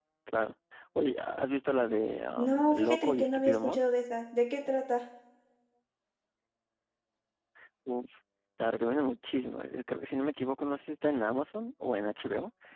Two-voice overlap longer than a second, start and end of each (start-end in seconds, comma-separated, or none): 2.4-3.8